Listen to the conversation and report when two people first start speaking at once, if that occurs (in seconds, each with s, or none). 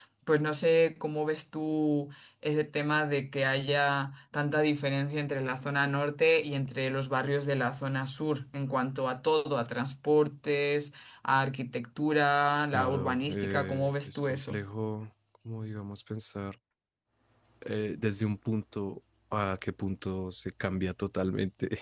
12.7 s